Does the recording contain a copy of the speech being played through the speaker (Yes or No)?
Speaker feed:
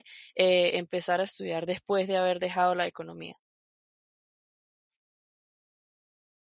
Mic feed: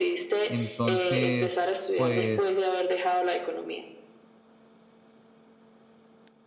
Yes